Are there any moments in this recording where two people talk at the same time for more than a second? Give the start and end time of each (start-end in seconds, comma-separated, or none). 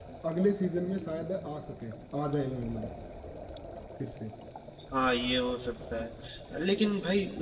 none